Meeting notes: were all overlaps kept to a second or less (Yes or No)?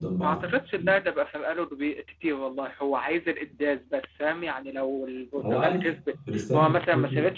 No